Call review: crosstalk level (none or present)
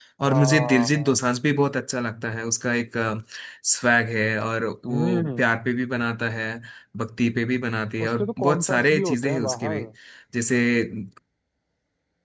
present